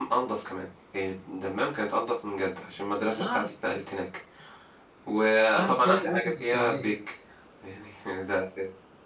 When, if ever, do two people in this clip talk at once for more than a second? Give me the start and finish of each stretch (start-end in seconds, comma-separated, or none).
5.6-6.9